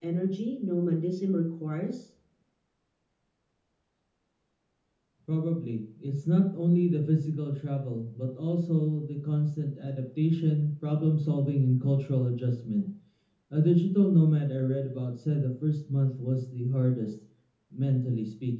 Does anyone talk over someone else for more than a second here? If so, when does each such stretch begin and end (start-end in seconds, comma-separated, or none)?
none